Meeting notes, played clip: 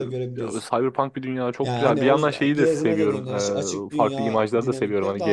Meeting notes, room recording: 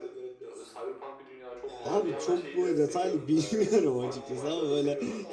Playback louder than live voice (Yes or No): No